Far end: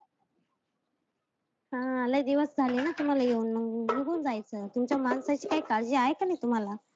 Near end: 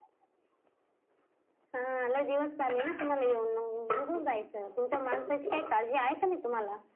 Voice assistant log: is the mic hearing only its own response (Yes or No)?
Yes